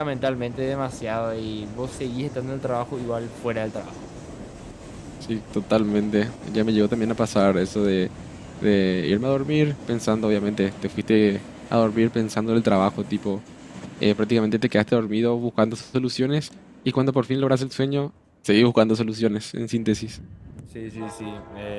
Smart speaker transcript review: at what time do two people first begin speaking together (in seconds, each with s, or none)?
none